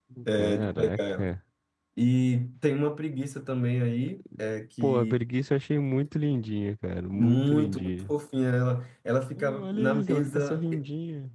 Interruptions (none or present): present